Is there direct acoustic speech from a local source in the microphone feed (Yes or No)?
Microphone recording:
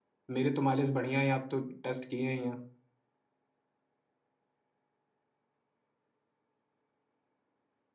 Yes